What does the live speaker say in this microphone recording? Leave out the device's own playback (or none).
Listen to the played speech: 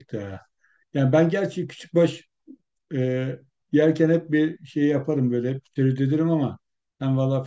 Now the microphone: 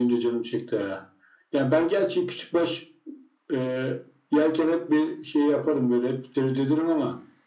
none